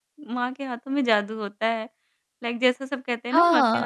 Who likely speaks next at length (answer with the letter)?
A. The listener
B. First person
A